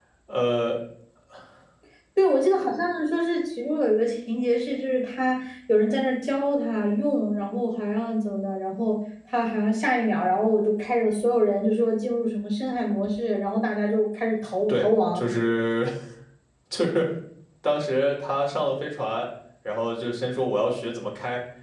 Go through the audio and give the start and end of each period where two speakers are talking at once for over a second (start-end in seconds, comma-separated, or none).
none